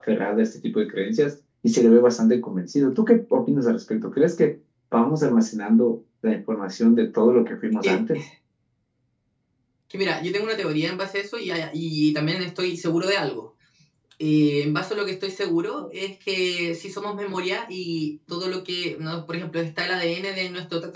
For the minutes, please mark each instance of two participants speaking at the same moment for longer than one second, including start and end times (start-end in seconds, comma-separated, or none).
none